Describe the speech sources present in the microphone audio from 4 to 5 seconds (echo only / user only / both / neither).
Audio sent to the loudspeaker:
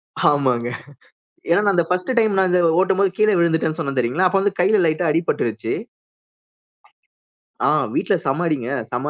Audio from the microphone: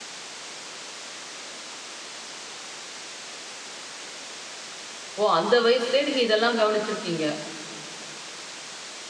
neither